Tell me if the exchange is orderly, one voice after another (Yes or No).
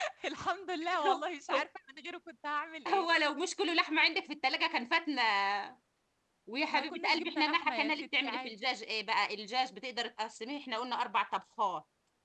No